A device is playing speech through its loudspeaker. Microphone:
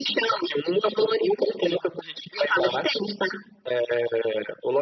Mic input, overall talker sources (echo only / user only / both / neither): echo only